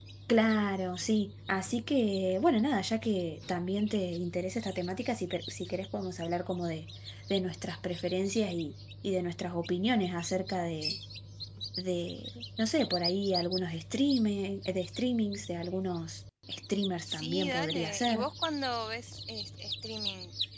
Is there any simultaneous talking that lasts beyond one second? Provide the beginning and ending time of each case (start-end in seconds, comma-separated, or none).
17.1-18.3